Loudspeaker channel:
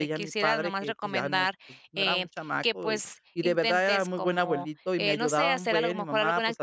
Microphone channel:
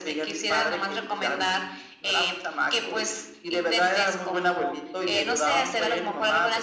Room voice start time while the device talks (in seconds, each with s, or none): none